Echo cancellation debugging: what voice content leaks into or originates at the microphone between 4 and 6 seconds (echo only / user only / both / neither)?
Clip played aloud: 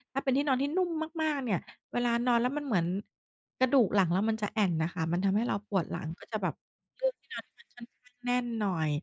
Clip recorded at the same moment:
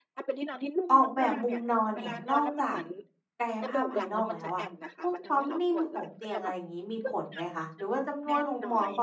both